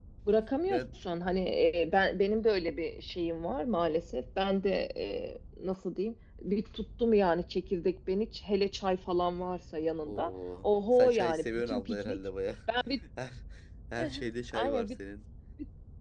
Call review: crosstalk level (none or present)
present